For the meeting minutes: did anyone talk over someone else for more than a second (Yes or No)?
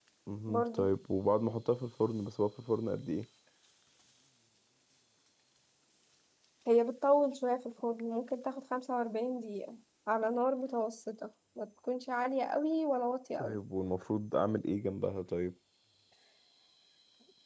No